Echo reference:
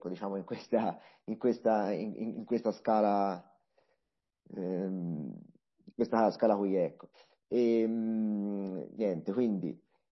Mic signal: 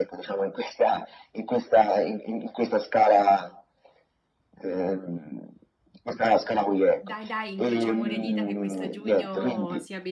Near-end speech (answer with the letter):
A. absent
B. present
B